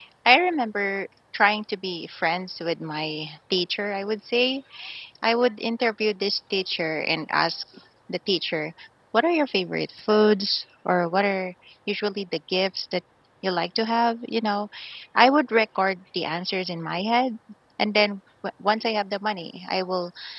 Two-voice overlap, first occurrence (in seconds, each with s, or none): none